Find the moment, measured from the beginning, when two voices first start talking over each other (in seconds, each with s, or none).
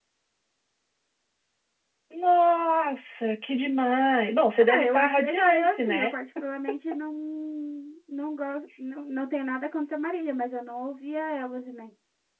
4.6 s